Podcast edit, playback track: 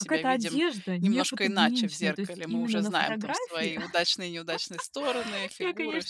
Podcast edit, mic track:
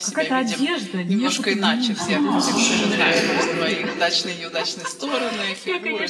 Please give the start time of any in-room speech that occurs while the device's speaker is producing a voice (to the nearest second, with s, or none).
2 s